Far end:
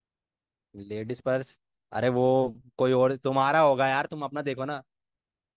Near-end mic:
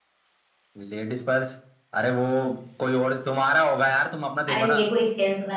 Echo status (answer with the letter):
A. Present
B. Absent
A